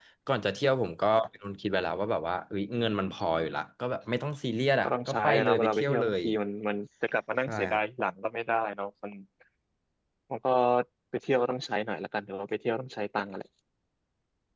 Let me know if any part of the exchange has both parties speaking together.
Yes, from 4.8 s

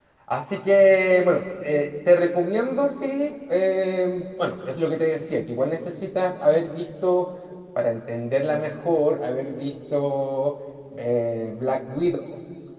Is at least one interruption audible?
No

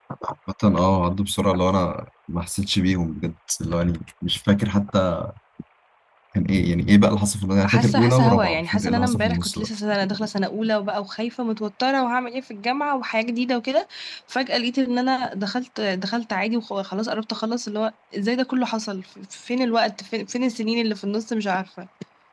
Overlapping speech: Yes, from 7.6 s

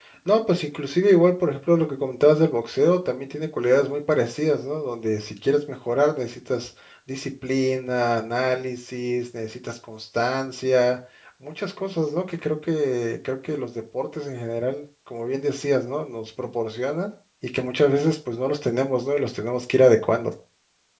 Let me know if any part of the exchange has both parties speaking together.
No

